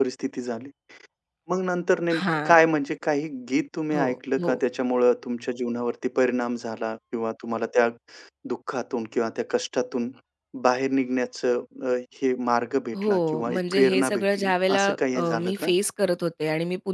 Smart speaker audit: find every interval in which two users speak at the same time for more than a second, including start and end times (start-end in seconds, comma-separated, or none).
12.9-15.7